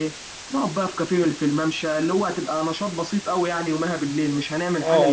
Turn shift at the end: Yes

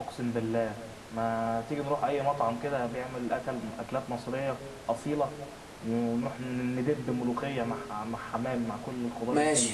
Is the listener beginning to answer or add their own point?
Yes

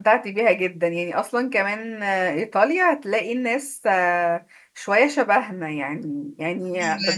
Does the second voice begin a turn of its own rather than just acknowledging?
No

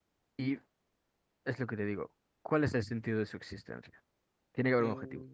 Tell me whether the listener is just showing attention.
No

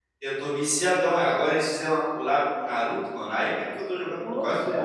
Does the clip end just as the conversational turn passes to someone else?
No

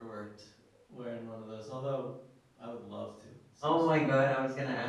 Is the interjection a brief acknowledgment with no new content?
No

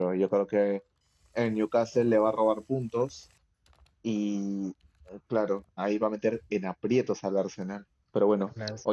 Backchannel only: Yes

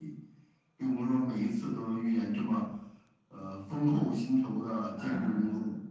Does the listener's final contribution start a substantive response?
Yes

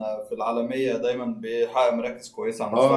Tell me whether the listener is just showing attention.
No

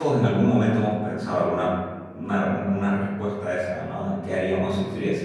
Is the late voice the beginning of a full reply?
No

